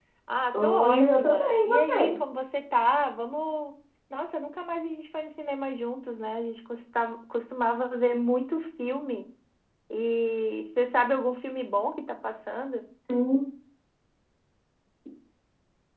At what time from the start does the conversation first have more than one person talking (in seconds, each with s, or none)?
0.6 s